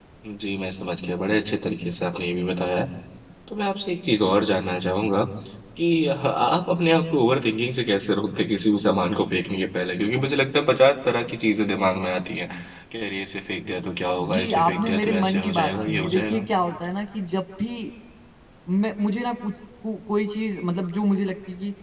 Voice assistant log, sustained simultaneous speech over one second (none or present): present